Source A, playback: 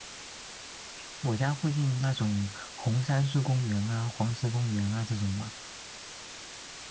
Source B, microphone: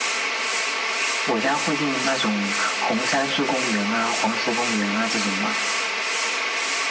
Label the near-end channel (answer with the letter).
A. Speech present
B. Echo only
B